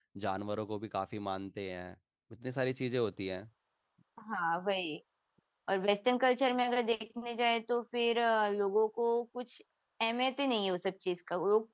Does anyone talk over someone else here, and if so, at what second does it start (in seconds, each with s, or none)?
none